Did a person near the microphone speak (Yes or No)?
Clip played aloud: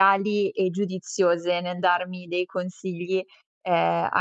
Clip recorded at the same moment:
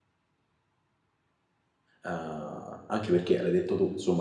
Yes